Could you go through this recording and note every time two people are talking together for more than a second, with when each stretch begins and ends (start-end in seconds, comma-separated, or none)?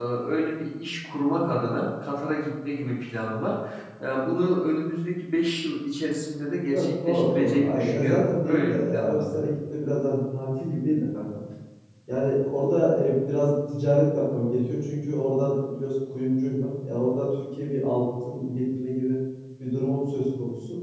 6.7-9.2